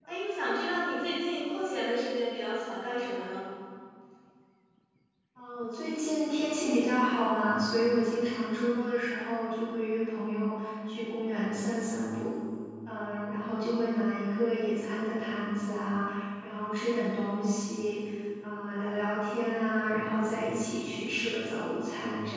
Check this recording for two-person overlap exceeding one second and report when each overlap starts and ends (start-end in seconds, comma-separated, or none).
none